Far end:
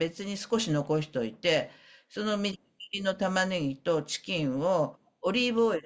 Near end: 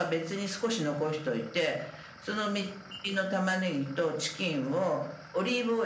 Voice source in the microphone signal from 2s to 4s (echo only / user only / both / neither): echo only